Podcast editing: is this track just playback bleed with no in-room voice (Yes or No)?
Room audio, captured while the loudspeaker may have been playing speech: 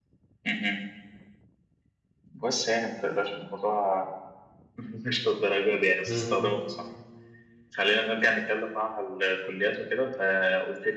No